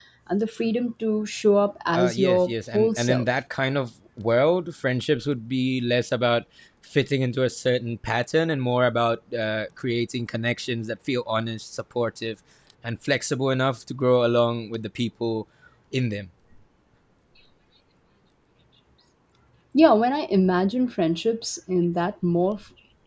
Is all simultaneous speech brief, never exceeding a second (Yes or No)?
No